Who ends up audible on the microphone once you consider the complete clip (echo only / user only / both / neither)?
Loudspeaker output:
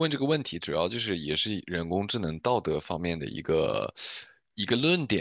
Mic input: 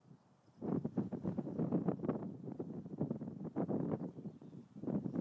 neither